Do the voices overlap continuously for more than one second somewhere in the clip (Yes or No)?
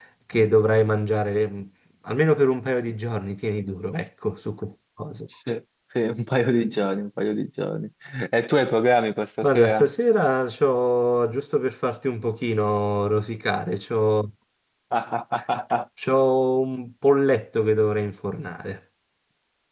No